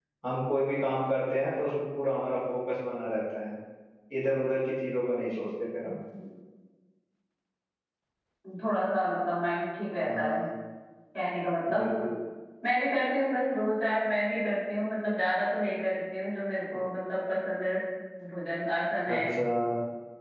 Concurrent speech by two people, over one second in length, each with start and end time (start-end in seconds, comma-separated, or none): none